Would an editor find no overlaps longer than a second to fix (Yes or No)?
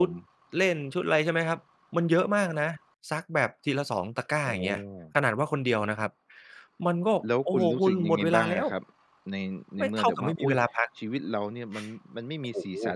No